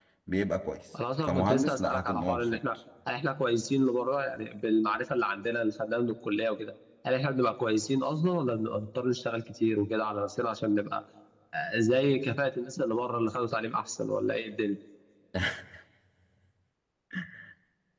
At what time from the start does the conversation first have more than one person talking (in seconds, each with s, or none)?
1.2 s